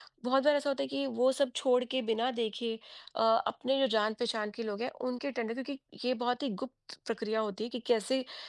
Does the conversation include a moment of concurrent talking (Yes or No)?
No